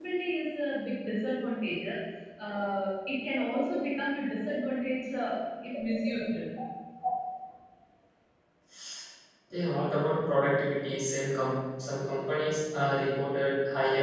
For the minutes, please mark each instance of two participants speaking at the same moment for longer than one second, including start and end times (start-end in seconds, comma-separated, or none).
none